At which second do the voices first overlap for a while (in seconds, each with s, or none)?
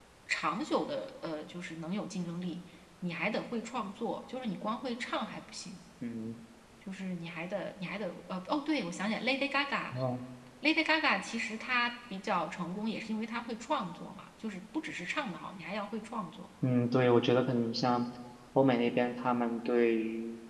none